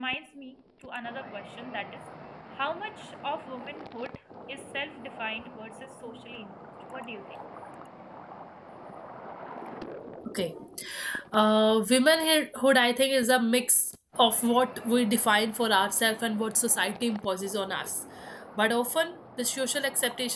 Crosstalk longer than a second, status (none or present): none